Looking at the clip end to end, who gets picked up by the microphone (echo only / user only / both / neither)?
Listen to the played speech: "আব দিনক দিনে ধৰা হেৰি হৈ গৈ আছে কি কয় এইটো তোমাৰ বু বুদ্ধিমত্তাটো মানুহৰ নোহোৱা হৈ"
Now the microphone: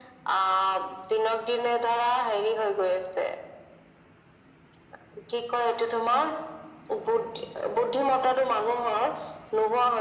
echo only